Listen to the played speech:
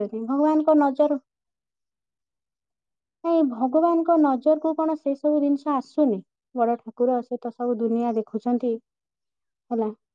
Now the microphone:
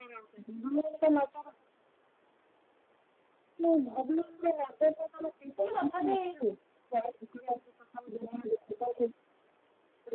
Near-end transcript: କିନ୍ତୁ ତଥାପି

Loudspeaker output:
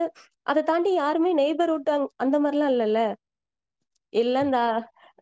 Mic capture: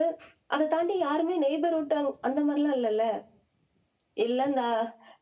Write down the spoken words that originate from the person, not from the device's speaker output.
none

